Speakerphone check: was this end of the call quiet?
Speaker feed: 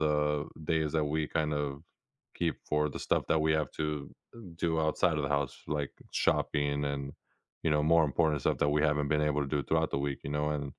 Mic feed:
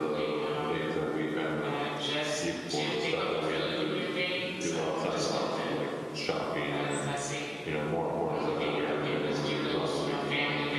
No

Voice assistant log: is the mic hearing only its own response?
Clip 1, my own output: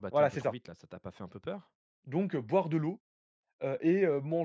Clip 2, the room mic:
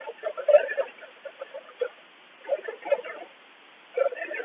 Yes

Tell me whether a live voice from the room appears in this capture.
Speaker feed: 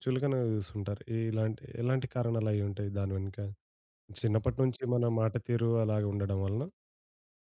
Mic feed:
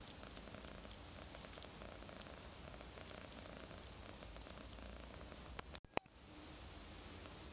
No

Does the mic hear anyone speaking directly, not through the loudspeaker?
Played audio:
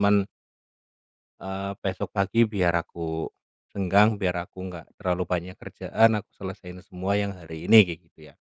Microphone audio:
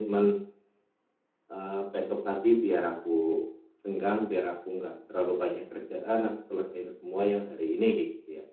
No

